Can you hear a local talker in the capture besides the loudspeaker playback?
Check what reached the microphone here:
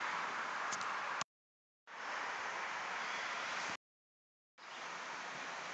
No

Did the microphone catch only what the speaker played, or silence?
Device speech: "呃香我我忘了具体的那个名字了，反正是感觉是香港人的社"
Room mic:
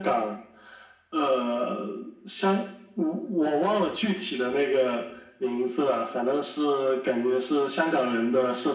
Yes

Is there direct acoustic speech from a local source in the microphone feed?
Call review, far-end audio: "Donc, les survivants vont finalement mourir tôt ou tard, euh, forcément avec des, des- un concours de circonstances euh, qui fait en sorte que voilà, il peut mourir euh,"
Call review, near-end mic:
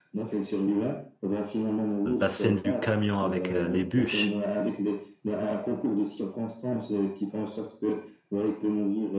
Yes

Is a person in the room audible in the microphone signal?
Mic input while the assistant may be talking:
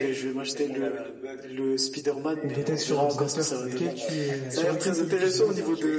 Yes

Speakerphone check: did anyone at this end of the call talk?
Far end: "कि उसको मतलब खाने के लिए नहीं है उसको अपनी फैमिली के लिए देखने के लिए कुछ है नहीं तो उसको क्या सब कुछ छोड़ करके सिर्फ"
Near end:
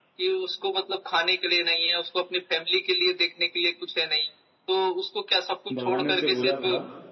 Yes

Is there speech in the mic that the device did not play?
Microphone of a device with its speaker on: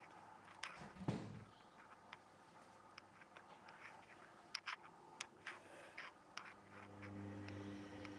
No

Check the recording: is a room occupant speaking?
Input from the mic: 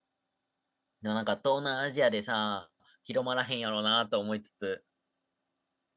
Yes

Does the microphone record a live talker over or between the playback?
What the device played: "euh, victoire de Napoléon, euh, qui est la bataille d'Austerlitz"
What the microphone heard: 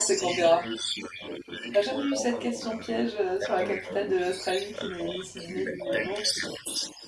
Yes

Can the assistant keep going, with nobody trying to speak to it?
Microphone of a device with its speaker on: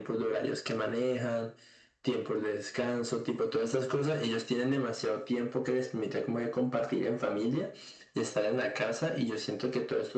Yes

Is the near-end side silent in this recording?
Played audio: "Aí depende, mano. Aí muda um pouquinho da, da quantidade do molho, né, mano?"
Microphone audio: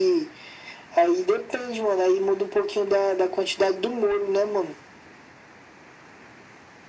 Yes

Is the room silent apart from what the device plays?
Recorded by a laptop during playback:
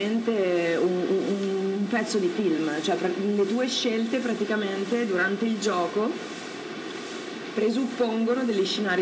Yes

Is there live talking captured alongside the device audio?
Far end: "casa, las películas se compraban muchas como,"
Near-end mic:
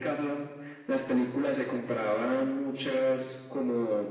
No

